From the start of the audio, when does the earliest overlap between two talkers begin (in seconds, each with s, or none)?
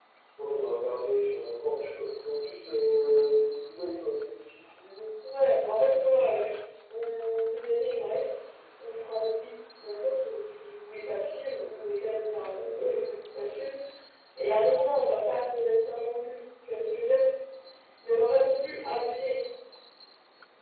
none